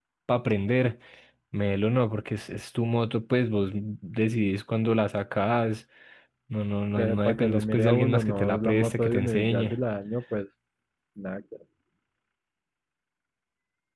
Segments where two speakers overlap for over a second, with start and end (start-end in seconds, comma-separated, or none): 7.0-9.7